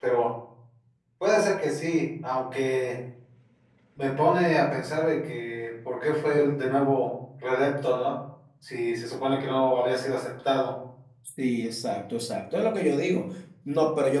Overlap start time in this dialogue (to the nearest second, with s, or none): none